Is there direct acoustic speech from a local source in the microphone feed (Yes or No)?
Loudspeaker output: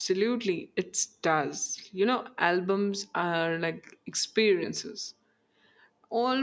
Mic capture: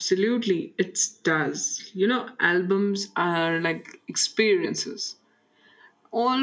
No